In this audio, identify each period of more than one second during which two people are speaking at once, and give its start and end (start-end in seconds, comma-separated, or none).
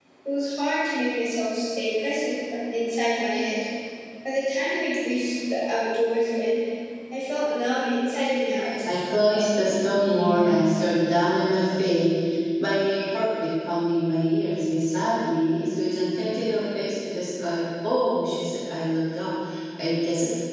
8.9-10.5